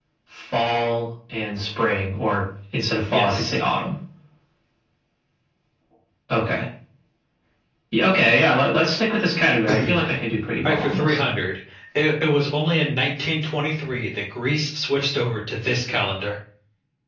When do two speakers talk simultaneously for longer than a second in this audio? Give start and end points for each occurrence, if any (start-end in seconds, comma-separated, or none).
none